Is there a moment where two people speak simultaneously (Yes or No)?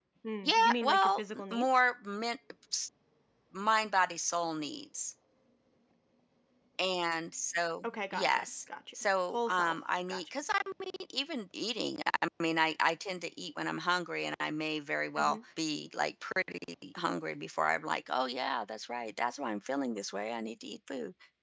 Yes